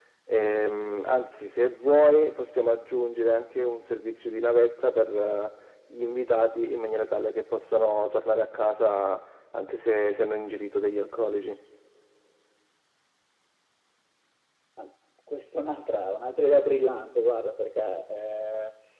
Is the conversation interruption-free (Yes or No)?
Yes